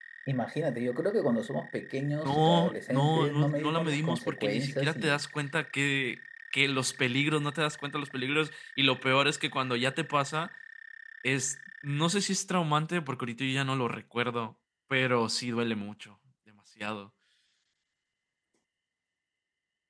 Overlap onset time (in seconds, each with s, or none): 2.2 s